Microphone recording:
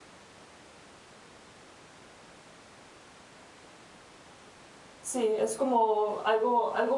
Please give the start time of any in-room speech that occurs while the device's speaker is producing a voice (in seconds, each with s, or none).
5.0 s